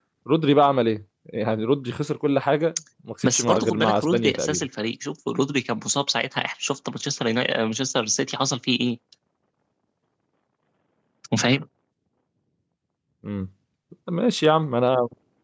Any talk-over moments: Yes, from 3.2 s

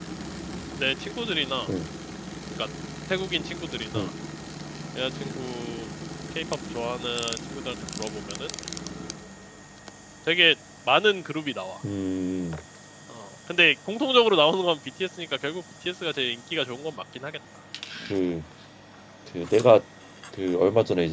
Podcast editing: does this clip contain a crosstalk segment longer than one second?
No

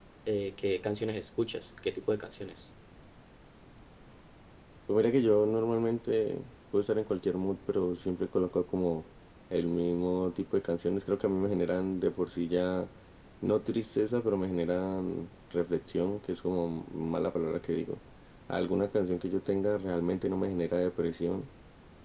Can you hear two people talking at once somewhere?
No

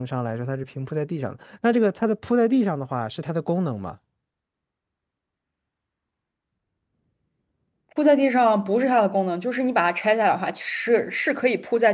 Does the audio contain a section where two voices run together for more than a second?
No

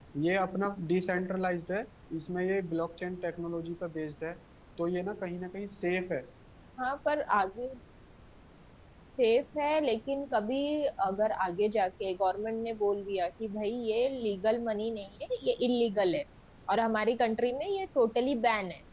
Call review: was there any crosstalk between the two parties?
No

